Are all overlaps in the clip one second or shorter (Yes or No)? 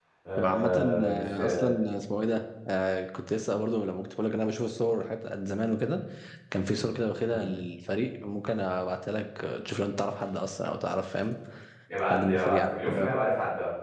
No